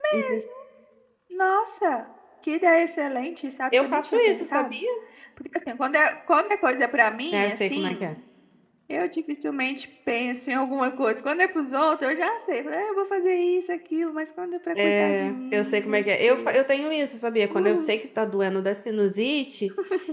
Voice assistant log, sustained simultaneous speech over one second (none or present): present